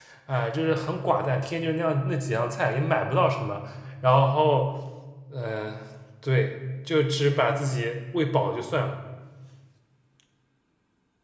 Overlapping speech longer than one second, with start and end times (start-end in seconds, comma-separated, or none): none